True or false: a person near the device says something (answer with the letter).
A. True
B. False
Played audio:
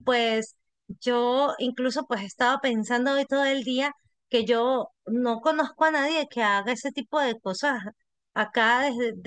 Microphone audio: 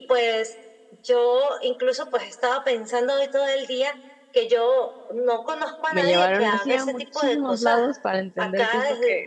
A